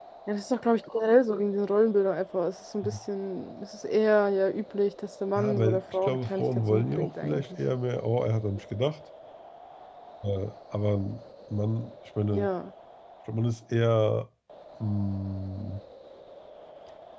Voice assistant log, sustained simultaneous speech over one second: present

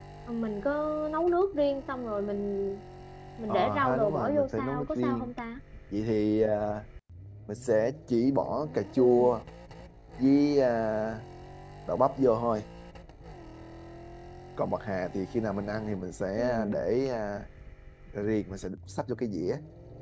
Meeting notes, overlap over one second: present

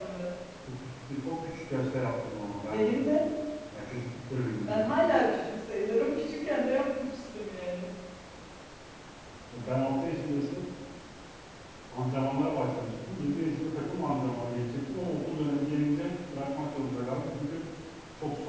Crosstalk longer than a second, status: none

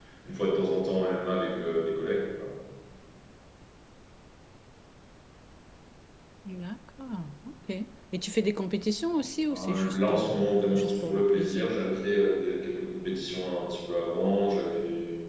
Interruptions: present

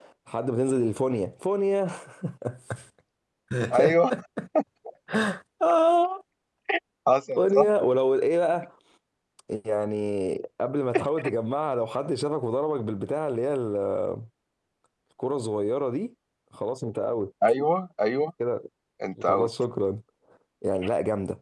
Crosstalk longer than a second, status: none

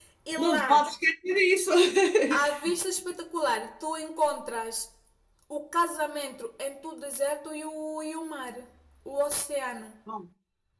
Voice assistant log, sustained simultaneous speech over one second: none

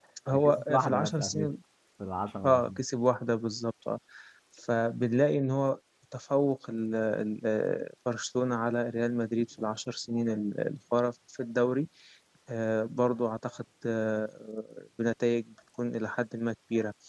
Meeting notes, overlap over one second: present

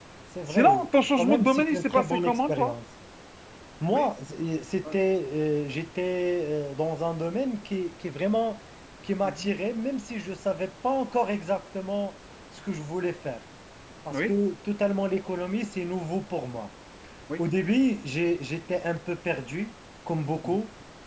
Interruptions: present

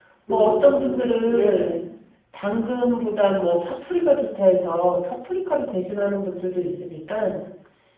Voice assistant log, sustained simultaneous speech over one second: present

